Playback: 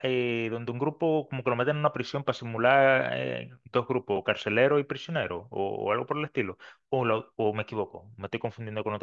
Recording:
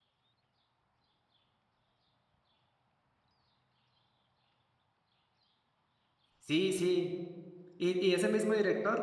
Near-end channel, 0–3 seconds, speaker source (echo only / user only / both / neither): neither